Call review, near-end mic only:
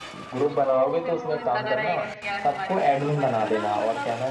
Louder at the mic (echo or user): echo